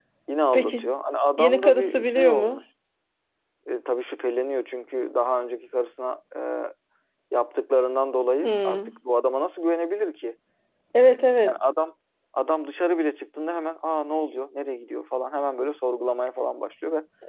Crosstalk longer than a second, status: present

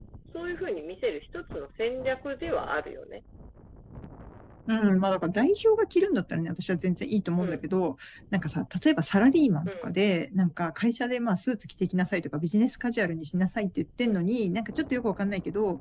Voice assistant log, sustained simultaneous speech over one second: none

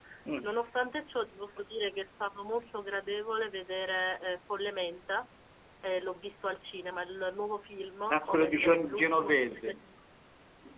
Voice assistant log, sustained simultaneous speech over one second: present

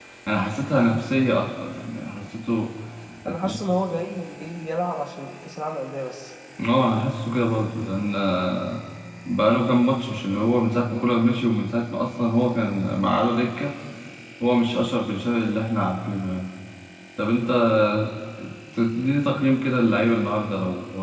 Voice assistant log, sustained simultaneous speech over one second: none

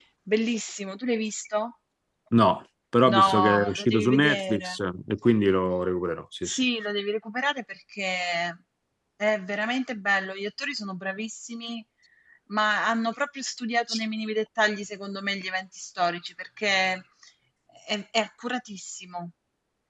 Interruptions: present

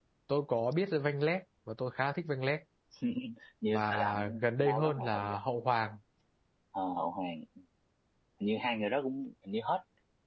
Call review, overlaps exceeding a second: present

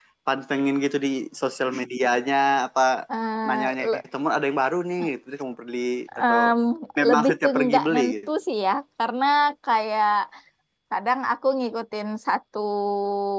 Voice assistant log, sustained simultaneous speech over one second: present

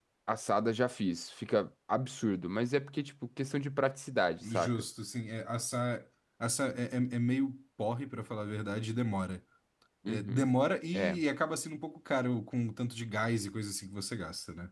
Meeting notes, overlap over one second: none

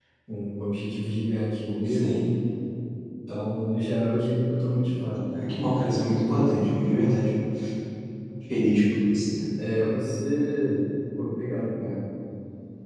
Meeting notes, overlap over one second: none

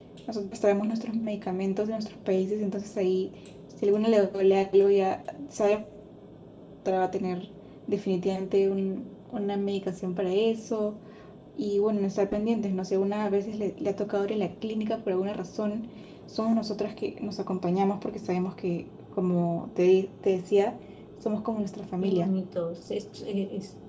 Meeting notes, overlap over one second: none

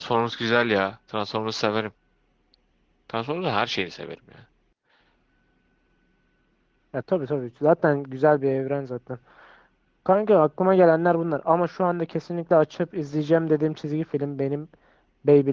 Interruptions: none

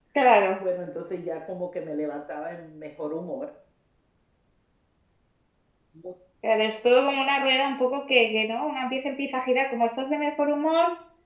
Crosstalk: none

